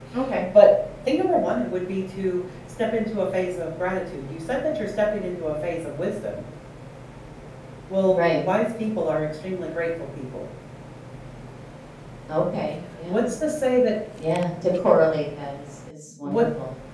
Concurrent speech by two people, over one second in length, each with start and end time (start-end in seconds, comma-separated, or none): none